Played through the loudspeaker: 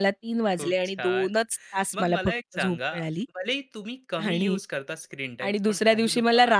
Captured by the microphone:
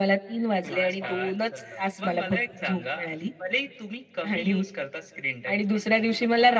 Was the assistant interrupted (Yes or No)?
Yes